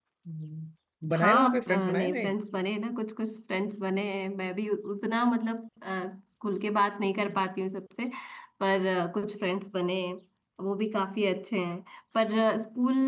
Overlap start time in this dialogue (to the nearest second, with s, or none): 1 s